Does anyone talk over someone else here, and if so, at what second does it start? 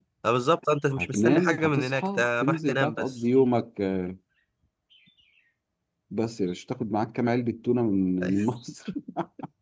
1 s

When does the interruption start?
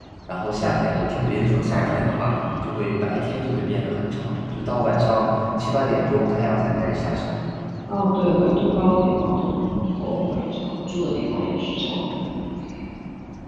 none

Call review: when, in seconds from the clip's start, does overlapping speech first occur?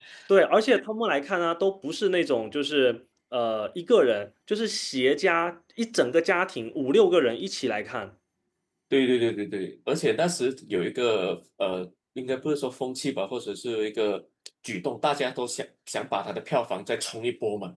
none

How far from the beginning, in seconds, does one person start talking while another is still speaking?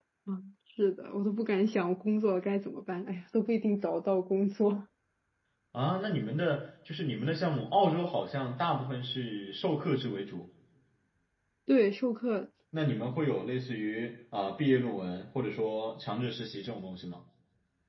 none

